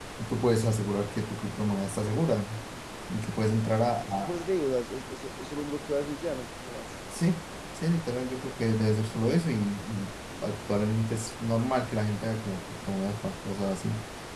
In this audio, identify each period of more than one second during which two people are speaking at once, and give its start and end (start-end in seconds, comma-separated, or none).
none